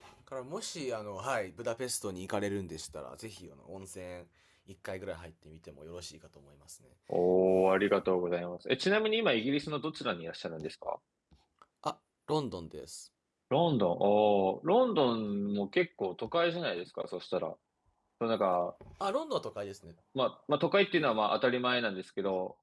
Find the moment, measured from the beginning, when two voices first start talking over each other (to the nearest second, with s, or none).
none